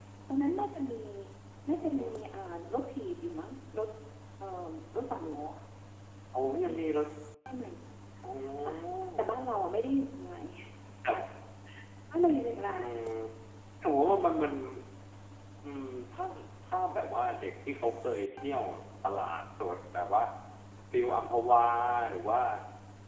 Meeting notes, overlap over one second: none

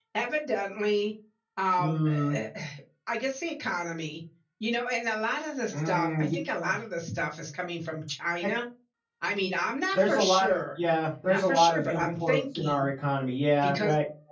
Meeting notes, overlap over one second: present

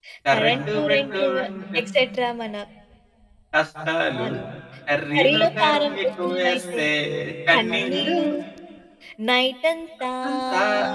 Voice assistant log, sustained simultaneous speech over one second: present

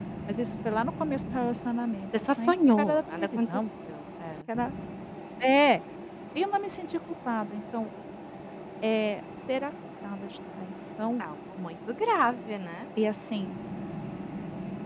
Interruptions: present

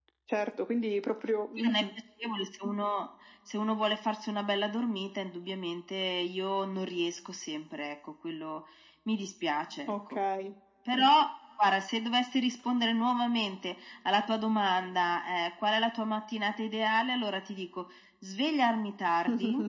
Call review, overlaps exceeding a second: none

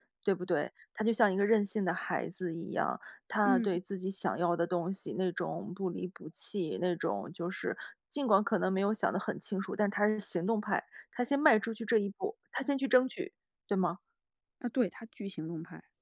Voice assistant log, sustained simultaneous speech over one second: none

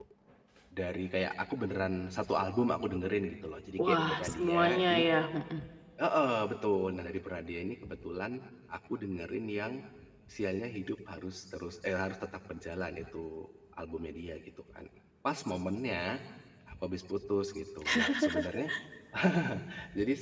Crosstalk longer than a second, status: present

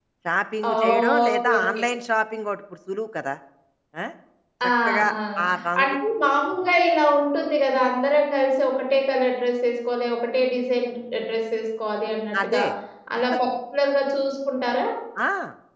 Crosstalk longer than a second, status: present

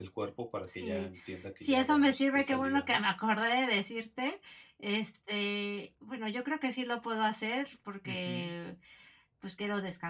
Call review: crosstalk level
present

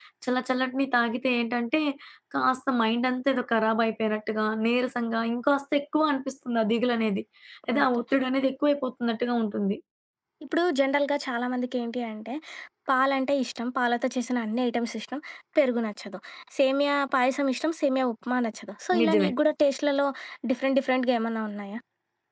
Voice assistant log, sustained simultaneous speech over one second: none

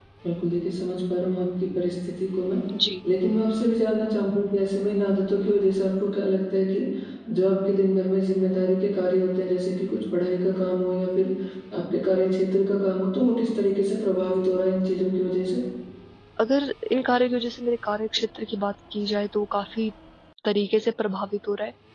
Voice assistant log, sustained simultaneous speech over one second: none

